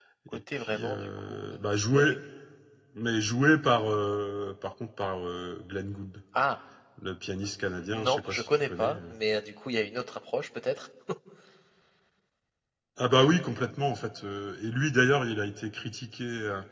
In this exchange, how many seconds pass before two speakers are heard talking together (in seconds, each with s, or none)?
0.5 s